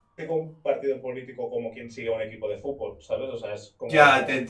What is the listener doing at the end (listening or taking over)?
taking over